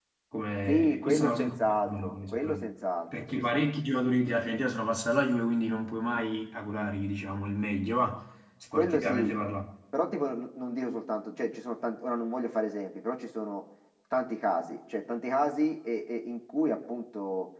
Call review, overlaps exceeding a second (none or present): present